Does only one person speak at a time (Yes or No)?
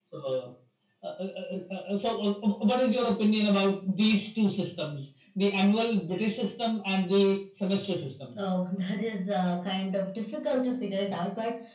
Yes